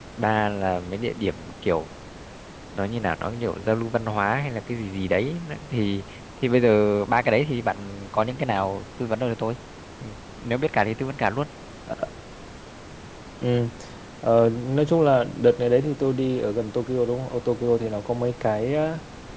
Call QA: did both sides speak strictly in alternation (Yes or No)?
Yes